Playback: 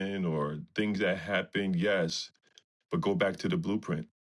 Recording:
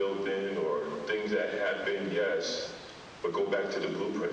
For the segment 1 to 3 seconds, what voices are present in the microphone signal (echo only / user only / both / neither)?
echo only